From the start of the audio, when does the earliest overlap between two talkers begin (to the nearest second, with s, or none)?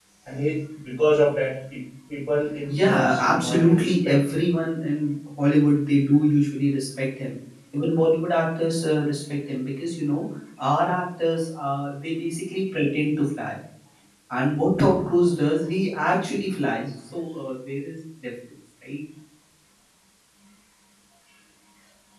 3 s